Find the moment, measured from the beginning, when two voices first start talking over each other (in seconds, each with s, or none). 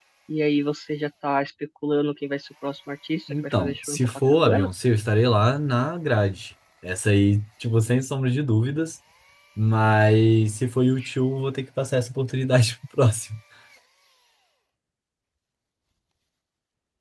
3.3 s